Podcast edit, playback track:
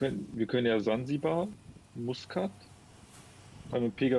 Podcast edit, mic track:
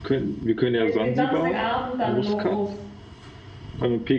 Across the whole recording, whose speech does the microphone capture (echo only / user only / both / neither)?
both